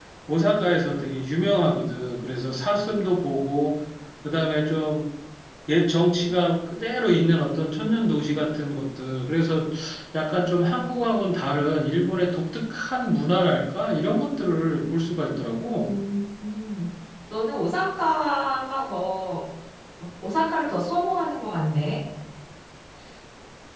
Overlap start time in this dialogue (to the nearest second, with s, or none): none